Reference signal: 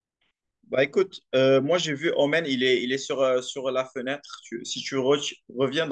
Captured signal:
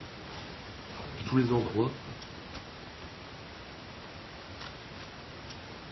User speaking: Yes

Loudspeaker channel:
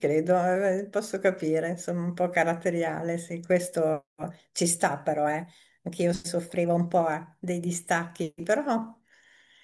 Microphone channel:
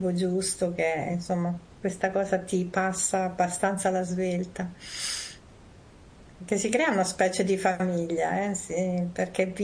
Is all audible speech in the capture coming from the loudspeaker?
No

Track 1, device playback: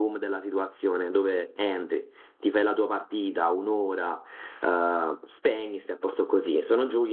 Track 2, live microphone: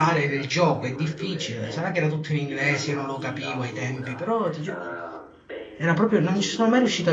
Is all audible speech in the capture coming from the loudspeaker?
No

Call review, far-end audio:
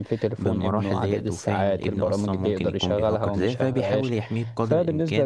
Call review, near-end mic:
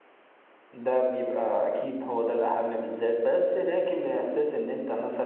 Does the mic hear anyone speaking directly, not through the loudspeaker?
Yes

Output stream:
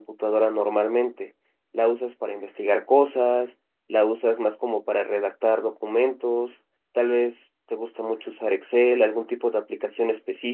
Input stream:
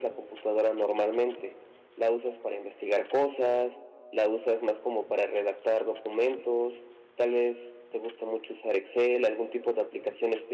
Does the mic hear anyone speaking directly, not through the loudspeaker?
No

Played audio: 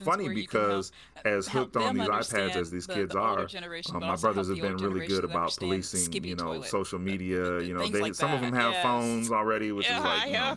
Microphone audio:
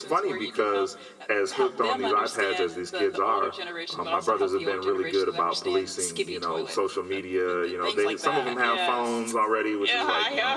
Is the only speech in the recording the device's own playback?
Yes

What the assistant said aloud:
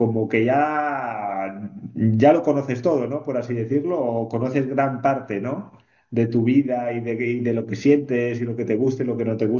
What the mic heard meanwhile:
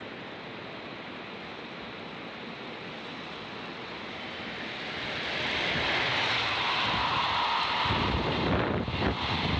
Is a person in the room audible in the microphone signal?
No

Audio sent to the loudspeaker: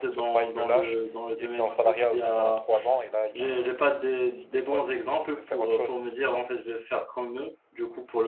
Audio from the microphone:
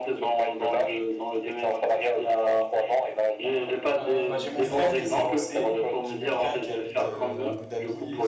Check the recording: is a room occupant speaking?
Yes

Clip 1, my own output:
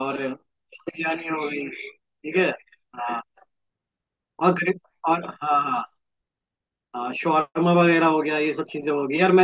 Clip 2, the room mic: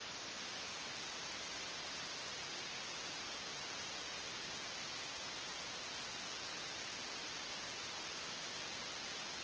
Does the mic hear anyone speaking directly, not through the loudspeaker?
No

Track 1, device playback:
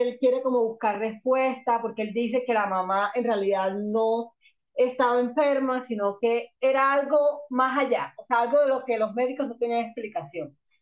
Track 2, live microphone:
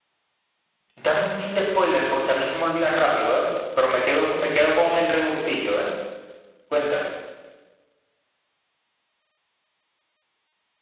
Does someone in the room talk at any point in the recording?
Yes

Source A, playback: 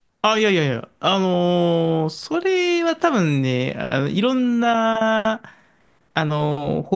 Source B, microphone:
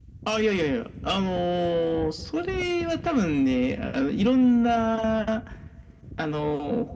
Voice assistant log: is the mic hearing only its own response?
Yes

